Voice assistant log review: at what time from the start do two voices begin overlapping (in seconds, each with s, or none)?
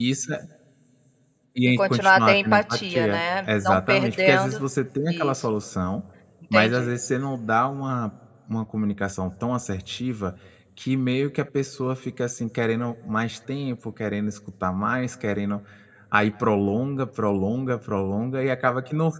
1.6 s